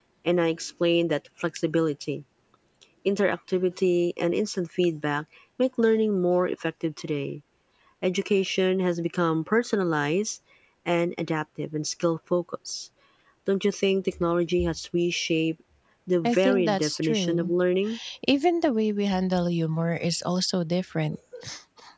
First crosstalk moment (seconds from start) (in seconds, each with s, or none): 16.2 s